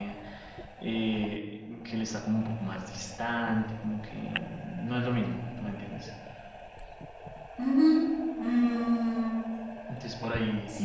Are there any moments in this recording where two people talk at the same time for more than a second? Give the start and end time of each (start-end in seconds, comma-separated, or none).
none